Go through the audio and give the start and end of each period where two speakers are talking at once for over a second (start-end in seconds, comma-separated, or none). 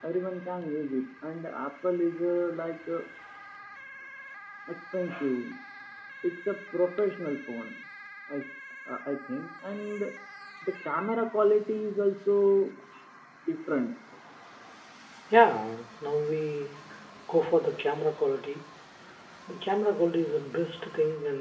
none